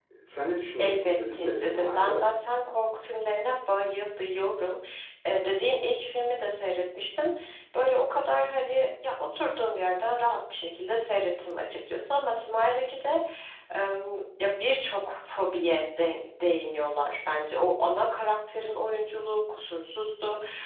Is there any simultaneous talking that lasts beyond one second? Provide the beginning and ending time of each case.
0.8-2.2

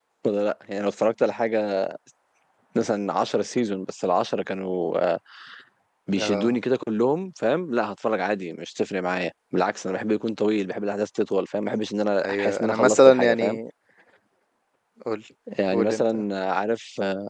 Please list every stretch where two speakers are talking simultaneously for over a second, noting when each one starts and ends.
12.2-13.6

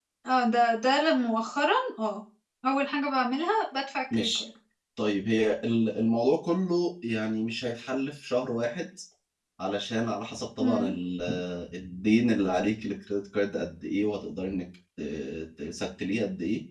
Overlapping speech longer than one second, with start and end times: none

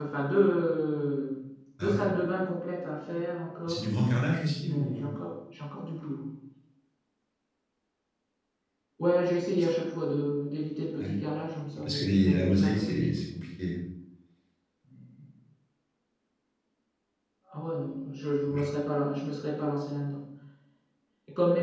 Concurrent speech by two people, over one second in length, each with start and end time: 11.8-13.1

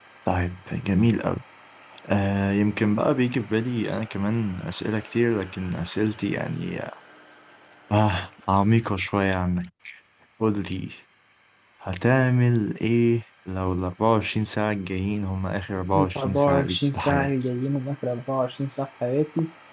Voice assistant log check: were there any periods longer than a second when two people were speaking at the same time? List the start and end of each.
15.9-17.3

